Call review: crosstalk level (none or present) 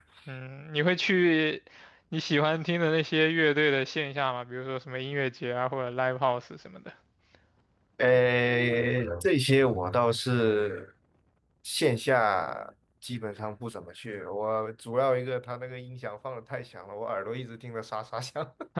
none